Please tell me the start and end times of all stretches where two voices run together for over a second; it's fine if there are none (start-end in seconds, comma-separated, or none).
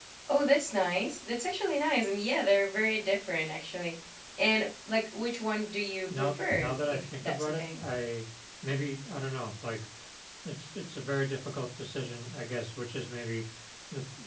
6.2-7.8